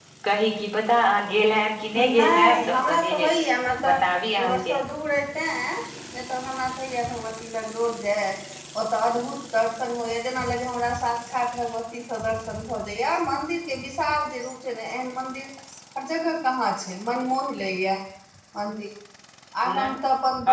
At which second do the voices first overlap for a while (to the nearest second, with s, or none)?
2 s